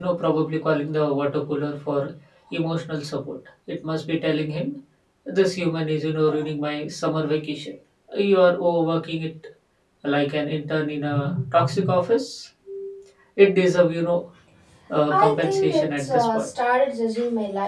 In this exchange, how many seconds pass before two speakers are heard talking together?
15.1 s

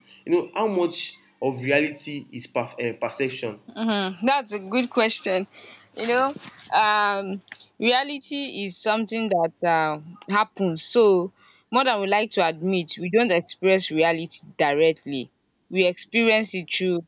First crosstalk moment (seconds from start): none

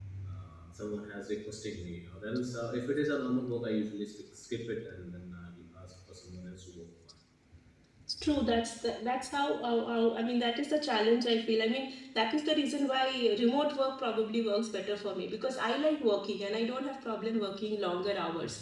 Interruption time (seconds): none

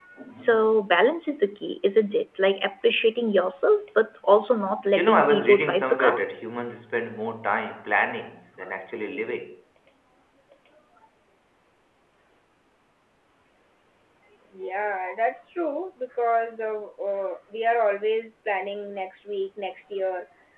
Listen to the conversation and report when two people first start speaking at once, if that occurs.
5.0 s

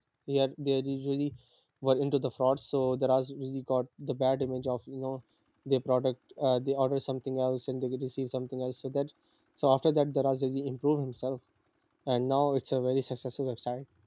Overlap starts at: none

